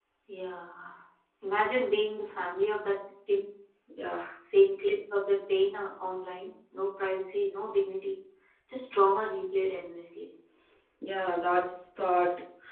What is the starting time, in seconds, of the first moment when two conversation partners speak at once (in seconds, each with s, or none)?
none